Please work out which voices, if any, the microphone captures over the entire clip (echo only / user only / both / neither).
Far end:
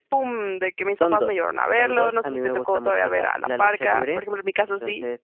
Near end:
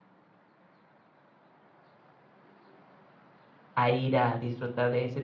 user only